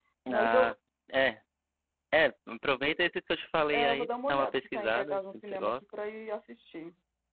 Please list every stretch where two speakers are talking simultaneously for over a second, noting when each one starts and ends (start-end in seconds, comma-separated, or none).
3.7-5.7